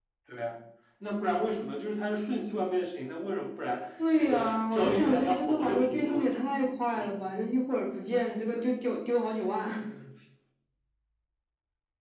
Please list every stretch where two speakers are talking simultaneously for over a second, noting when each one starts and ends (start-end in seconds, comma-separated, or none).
4.1-6.2